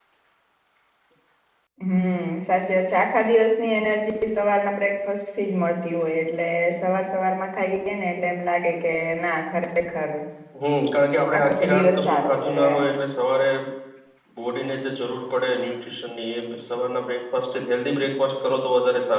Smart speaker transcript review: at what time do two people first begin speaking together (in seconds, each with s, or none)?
11.4 s